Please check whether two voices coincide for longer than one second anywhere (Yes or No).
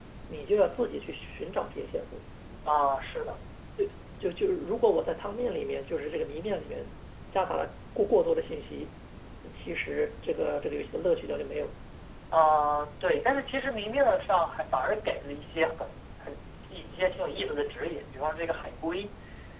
No